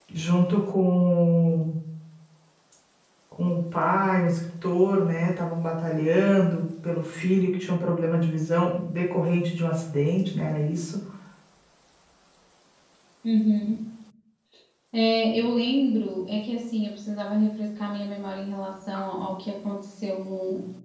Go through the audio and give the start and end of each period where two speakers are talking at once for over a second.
none

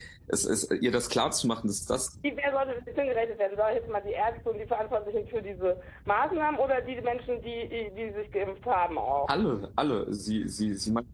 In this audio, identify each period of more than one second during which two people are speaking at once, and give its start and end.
none

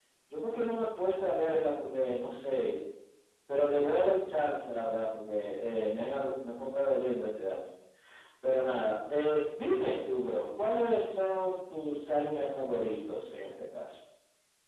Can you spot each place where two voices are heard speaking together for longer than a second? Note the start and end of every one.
none

